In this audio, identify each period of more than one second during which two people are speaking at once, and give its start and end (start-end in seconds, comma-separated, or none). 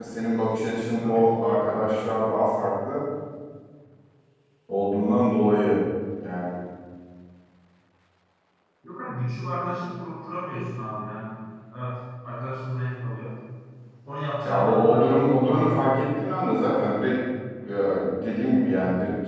14.4-15.9